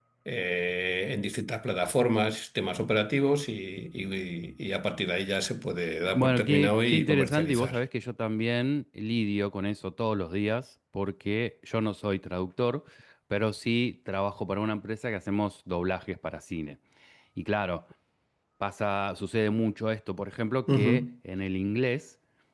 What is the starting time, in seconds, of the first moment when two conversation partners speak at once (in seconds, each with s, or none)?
6.1 s